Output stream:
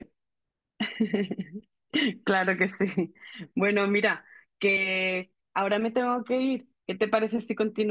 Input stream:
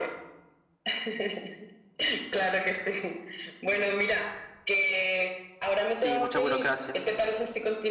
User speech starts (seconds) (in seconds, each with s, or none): 5.9 s